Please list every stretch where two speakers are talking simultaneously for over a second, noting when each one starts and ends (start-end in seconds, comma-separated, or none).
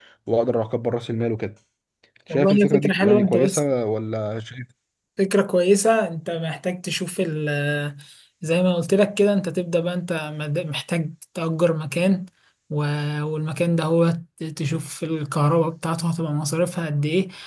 2.3-3.6